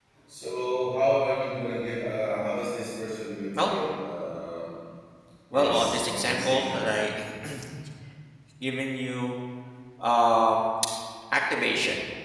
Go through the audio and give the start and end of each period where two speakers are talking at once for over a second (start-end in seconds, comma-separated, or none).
5.5-6.8